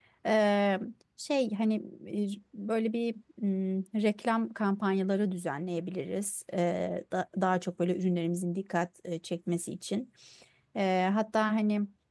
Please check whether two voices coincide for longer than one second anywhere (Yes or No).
No